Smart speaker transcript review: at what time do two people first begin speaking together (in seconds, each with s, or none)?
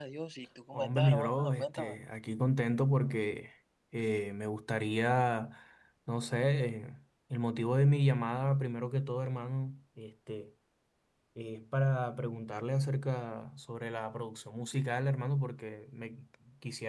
0.7 s